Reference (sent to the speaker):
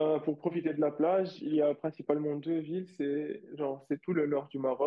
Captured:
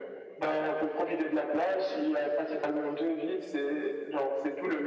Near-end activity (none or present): none